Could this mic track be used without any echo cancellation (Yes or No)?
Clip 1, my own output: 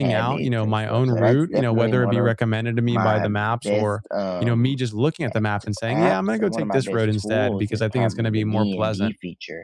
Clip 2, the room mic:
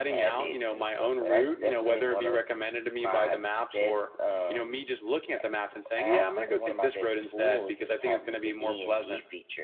No